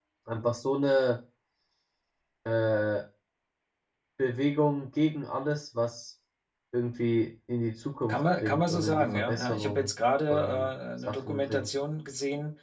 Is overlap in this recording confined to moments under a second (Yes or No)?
No